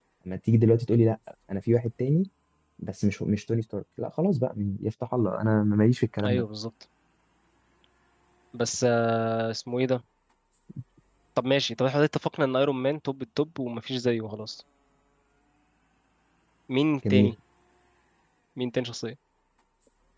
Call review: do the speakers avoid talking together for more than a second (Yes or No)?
Yes